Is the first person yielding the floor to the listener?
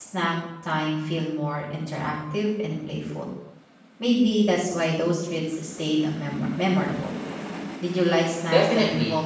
Yes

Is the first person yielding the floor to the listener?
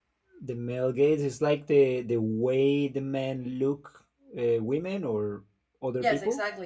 Yes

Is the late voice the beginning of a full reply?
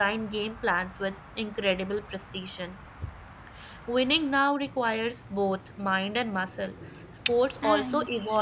No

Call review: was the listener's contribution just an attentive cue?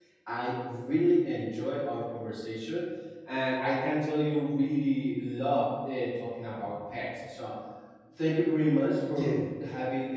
Yes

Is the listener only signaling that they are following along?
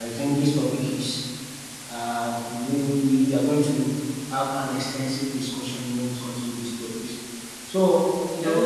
Yes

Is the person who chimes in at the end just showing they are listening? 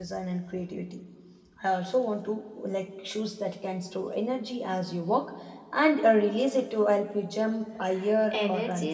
No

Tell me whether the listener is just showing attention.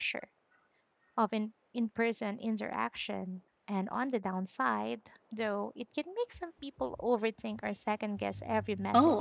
No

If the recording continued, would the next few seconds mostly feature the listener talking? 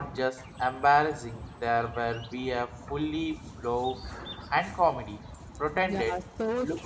Yes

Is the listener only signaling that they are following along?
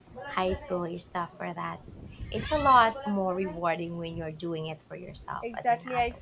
No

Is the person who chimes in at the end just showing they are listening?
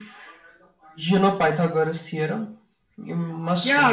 No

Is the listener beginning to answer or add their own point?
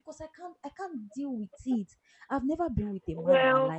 No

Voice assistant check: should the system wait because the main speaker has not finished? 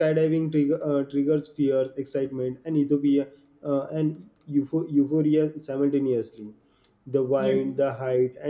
Yes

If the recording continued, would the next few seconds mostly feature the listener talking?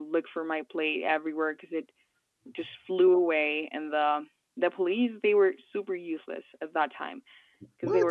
No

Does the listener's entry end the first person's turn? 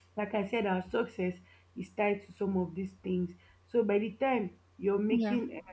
No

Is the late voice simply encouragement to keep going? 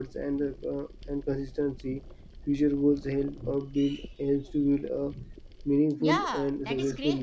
No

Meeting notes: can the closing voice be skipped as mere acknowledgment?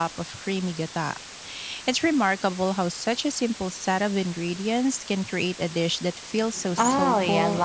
No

